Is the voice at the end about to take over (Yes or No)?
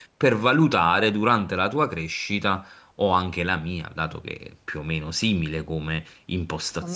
No